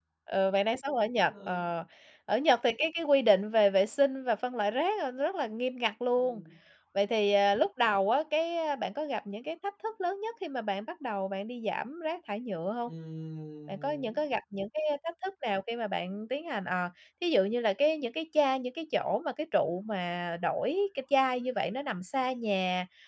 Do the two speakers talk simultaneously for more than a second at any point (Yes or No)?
No